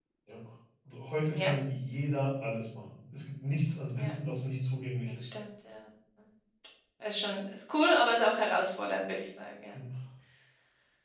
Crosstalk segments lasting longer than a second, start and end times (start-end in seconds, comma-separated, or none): none